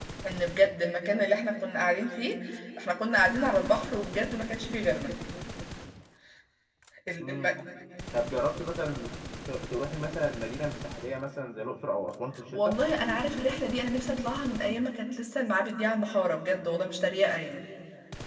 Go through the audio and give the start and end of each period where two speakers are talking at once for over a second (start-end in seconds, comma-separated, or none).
none